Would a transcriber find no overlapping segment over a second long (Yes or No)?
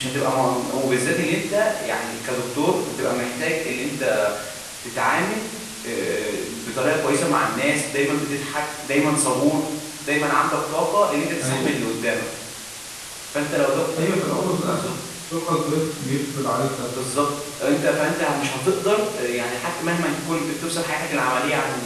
Yes